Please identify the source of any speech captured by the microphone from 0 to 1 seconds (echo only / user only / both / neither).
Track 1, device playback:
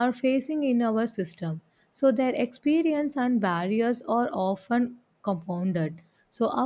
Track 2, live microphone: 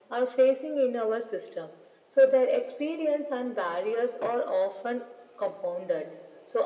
echo only